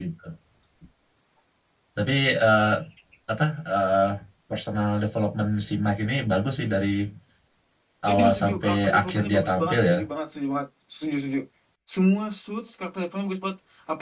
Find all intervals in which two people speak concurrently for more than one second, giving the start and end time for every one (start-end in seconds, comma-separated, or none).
8.1-9.9